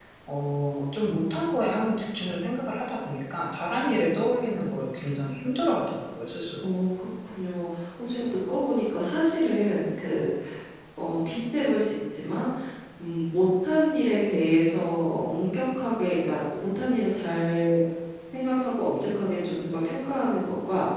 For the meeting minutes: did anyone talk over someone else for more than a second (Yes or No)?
No